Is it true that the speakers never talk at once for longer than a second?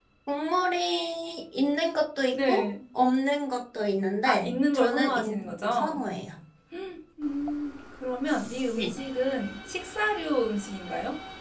No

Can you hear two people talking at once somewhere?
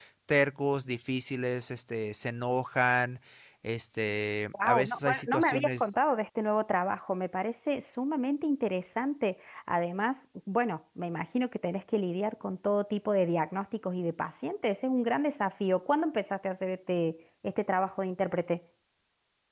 Yes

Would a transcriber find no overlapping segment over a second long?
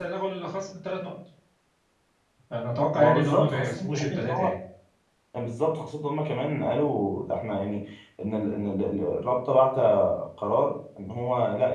No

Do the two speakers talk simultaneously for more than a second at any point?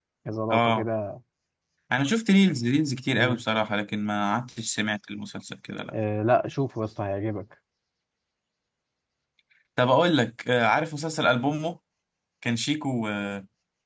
No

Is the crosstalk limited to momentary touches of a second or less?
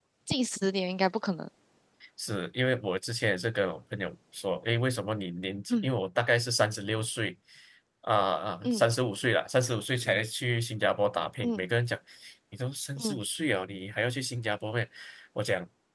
Yes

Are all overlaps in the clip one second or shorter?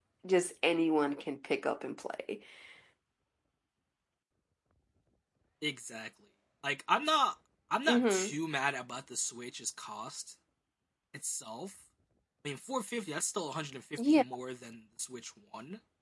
Yes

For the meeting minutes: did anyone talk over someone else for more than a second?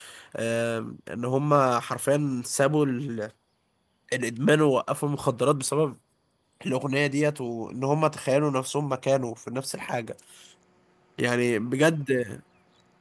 No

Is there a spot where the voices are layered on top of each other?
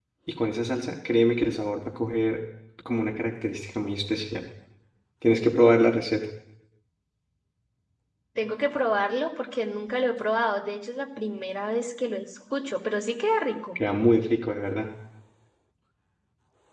No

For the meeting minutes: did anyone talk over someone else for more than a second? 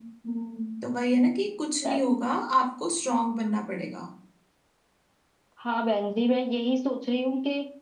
No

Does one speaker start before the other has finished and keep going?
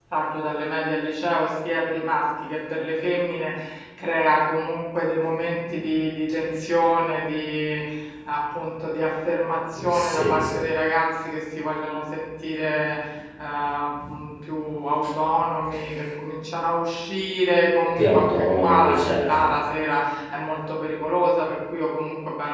Yes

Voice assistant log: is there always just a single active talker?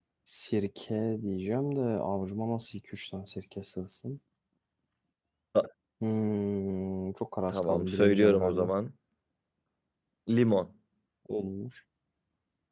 No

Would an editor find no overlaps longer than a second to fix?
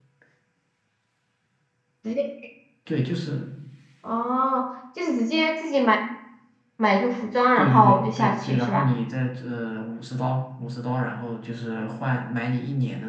No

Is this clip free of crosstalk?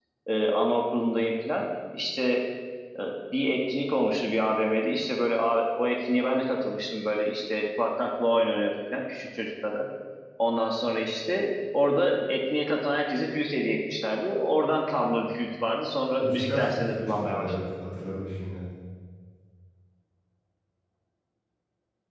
No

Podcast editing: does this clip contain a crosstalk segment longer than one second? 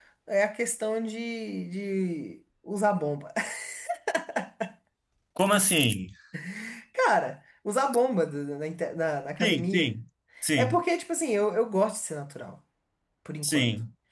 No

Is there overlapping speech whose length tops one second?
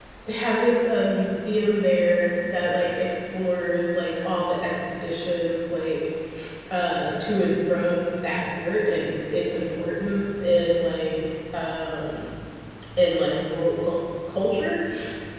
No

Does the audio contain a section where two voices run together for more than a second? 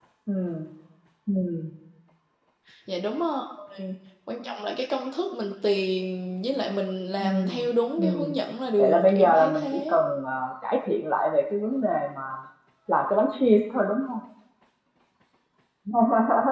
Yes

